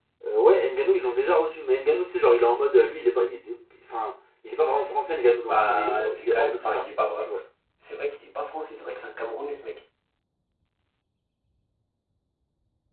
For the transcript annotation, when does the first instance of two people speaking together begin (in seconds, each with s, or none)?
5.5 s